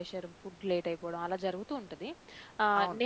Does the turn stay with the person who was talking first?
Yes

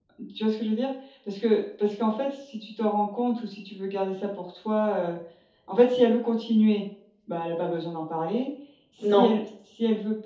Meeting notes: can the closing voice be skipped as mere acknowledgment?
Yes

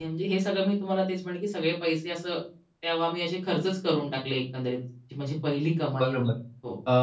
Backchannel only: No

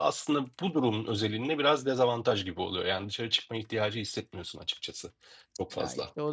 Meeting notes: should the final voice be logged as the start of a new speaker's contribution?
Yes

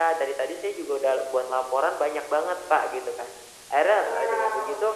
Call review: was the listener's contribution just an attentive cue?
Yes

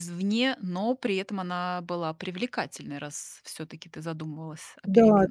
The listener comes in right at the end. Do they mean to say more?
Yes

